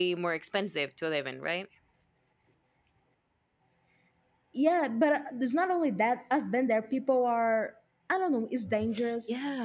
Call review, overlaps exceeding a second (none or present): none